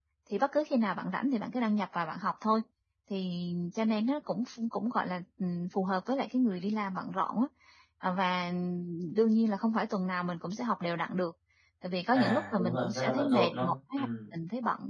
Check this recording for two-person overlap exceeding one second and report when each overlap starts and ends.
12.1-14.0

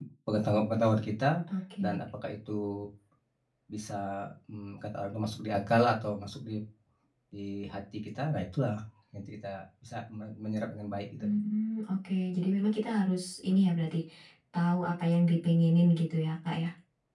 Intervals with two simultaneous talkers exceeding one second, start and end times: none

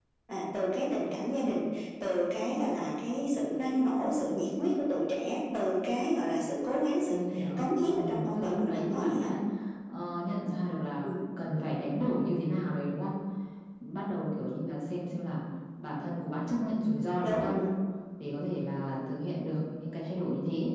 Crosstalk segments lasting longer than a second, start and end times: 7.1-9.3

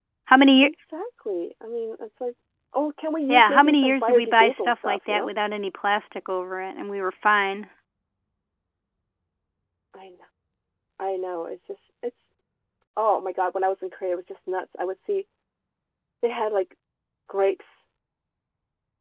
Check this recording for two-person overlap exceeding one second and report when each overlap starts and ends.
3.3-5.3

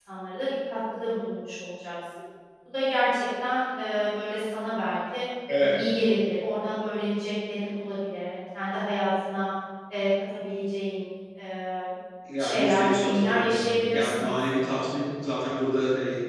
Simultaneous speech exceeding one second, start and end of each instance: 12.4-14.7

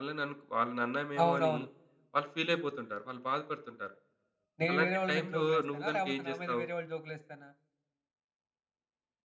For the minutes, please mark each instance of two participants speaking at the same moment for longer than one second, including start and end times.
4.7-6.6

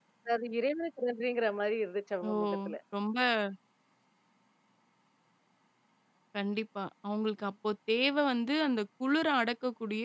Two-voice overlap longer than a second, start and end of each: none

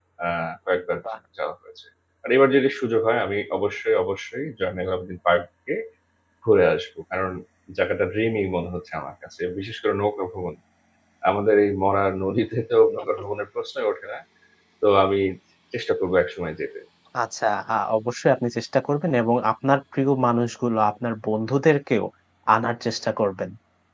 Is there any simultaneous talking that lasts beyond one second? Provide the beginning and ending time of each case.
none

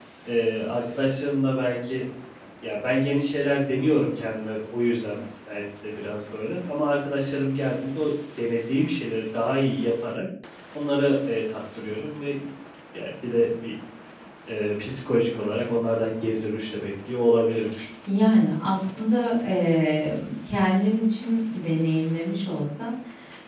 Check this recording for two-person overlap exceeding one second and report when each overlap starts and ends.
none

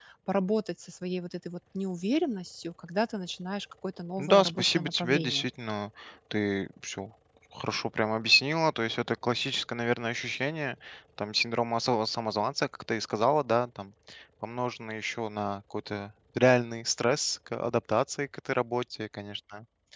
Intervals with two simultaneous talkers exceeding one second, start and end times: 4.2-5.5

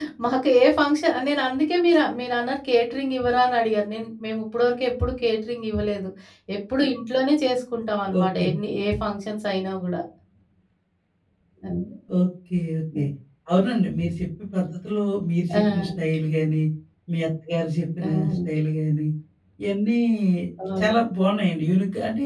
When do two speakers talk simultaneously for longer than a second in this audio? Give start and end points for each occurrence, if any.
none

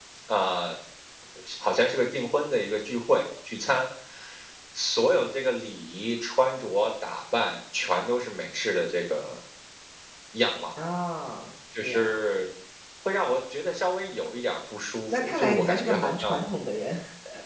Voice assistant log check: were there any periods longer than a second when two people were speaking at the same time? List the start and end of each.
15.1-16.4

